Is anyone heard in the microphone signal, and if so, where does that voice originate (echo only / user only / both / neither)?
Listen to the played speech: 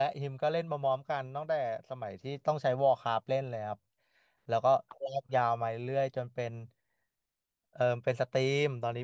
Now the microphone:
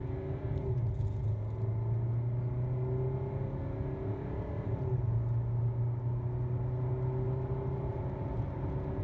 neither